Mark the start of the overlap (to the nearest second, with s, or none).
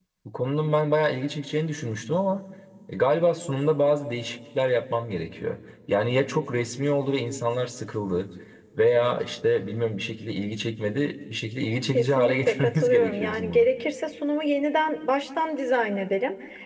12 s